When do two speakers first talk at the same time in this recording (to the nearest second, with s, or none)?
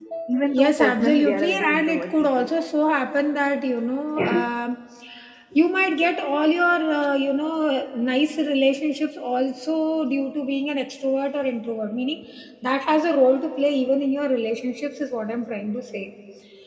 1 s